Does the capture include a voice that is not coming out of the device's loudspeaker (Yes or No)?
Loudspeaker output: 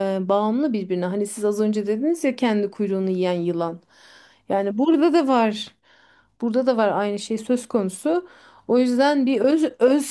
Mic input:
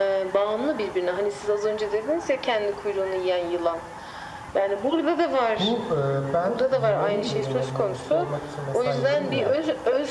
Yes